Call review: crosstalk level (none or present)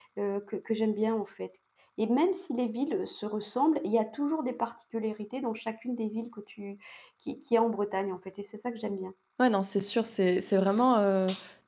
none